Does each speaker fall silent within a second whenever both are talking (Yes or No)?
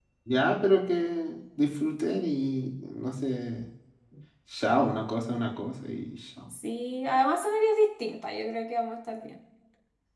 Yes